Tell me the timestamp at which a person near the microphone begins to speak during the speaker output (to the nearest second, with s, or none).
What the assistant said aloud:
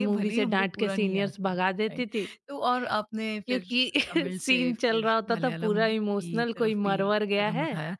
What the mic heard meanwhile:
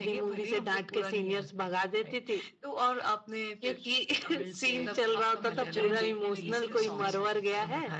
5 s